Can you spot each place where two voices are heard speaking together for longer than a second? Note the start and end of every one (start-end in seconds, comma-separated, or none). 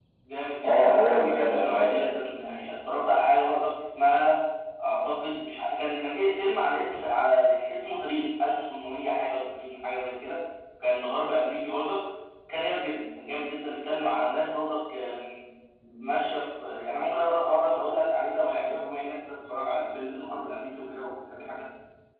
0.6-2.3